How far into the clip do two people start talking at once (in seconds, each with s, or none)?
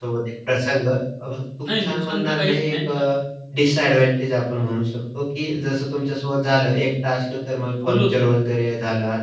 1.7 s